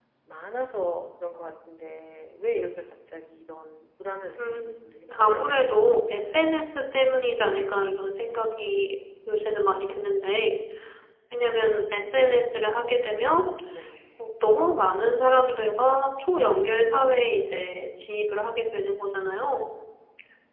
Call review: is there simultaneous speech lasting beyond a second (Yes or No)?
Yes